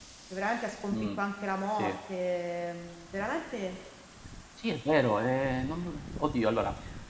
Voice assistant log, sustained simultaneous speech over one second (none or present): none